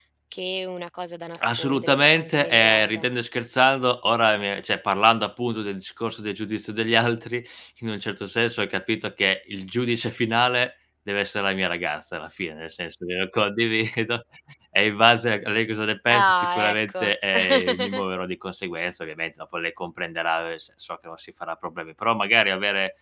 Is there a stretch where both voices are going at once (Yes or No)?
Yes